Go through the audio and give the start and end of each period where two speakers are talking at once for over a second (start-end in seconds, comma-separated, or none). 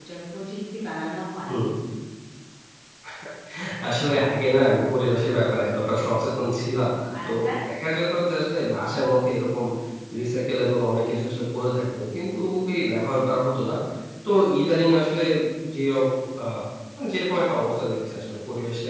none